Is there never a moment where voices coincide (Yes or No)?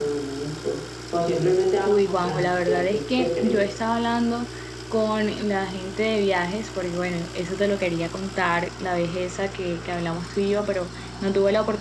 No